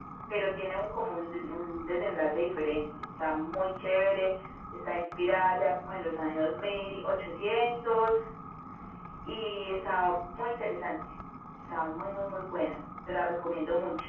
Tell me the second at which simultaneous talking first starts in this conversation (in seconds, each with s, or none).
none